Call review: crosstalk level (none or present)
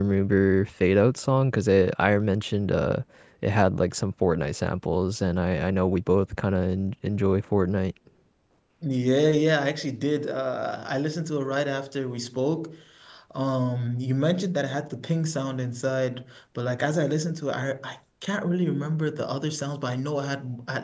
none